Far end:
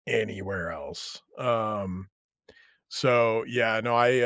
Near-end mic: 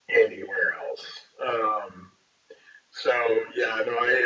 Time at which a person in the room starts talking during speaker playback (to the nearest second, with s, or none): none